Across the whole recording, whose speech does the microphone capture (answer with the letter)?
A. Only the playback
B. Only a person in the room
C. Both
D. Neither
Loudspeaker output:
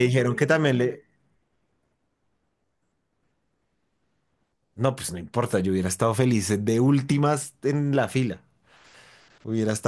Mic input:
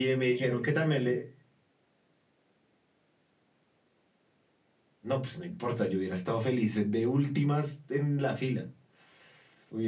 A